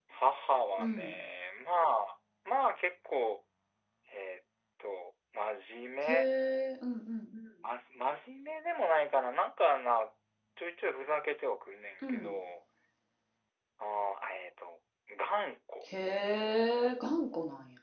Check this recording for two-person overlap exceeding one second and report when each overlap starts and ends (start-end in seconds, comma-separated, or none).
none